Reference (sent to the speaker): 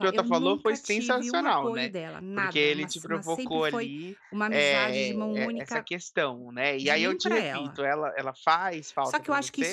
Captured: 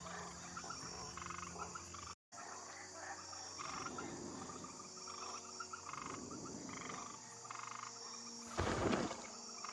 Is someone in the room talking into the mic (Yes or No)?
No